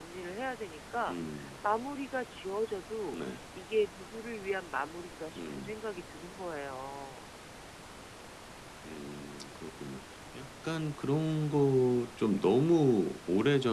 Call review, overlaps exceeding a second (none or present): none